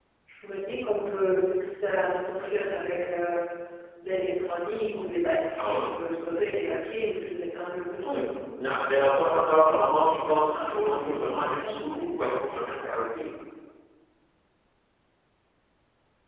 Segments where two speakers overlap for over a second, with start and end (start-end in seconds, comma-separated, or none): 9.5-12.1